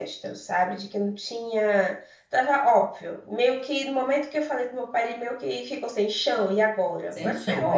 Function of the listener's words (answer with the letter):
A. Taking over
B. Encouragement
A